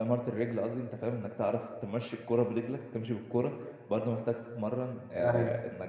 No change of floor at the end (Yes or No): Yes